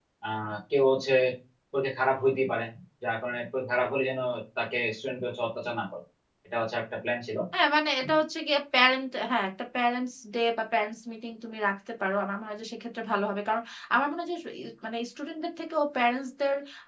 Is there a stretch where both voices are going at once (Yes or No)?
No